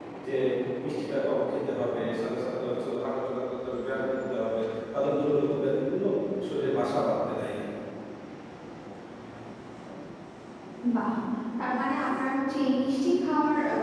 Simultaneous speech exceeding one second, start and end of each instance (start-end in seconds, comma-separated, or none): none